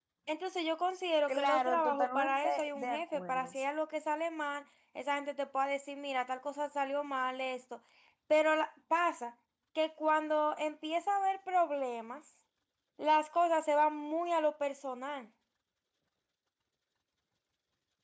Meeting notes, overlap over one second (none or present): present